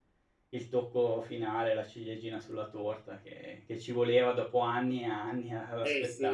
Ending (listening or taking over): taking over